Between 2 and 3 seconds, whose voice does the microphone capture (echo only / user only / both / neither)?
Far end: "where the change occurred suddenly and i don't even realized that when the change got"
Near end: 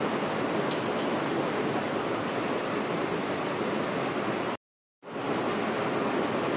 neither